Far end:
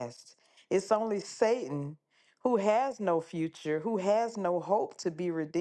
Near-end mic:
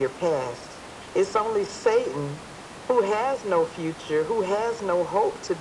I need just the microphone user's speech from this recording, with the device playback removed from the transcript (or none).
none